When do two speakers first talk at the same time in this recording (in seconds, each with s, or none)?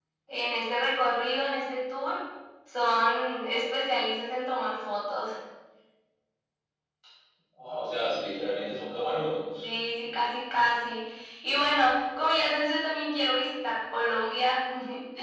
none